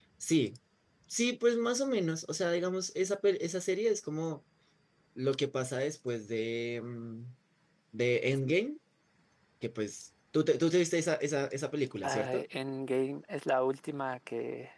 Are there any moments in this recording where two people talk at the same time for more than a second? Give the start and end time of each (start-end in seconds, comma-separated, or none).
none